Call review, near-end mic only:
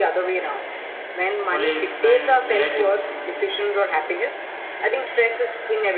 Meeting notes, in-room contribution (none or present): present